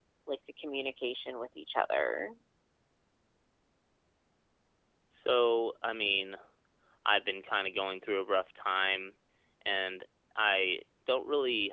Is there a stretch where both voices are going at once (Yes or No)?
No